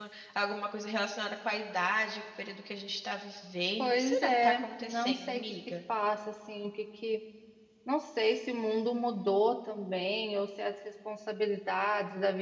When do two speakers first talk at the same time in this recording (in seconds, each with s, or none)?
3.8 s